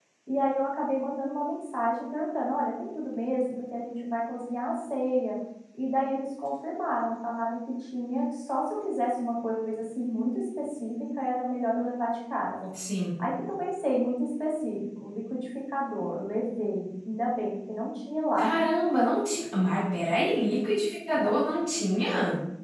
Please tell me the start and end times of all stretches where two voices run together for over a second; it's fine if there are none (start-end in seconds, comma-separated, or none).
none